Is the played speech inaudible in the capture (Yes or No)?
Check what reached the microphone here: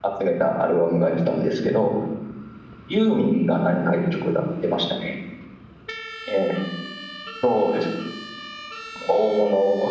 Yes